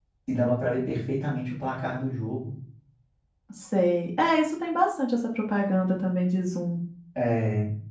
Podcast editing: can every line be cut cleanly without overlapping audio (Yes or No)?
Yes